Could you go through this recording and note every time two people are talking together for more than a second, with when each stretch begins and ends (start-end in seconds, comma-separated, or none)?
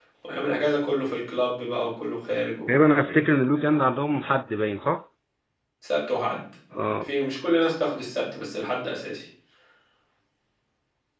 none